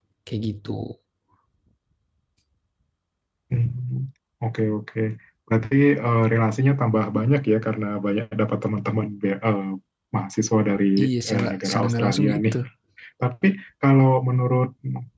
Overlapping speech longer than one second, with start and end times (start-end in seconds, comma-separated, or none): 11.3-12.5